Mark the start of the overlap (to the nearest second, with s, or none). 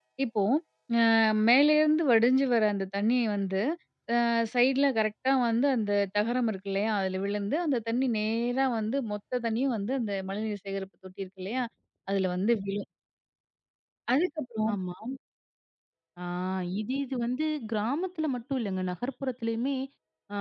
none